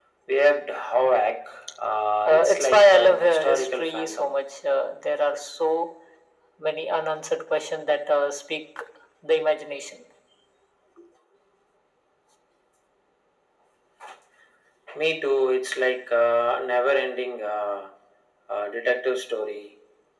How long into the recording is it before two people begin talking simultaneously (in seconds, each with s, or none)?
2.2 s